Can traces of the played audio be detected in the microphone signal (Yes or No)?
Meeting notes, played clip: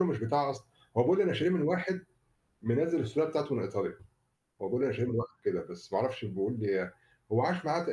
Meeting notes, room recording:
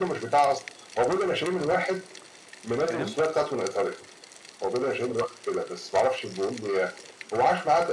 Yes